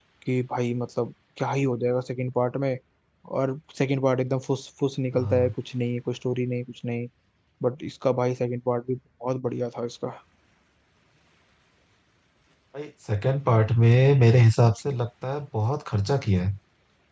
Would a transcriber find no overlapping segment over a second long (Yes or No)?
Yes